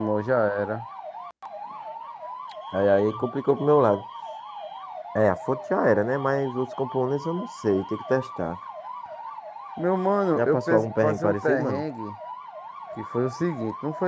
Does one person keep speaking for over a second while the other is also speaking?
Yes, from 10.4 s

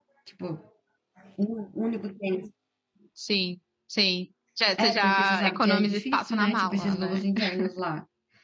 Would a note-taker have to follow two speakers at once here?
Yes, from 4.8 s

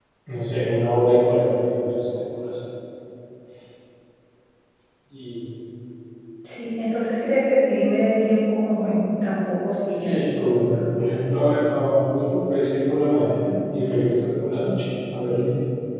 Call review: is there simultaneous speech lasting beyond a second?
No

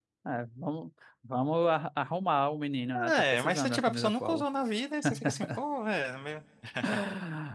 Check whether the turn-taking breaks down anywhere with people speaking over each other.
Yes, from 3.1 s

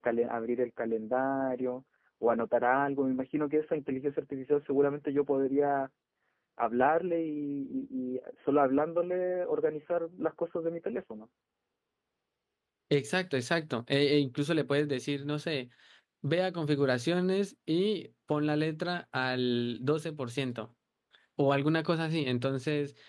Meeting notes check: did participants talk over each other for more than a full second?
No

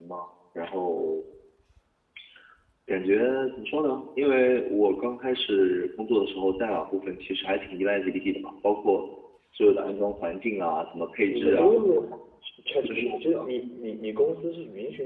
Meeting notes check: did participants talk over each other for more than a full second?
No

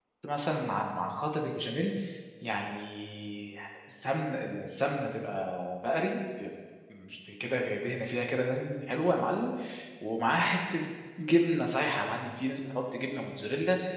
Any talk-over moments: No

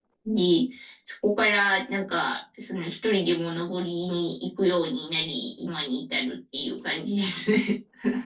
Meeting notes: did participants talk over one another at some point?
No

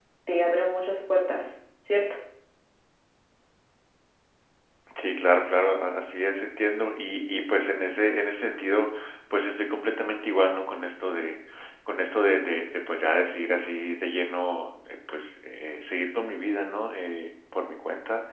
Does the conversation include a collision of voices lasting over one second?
No

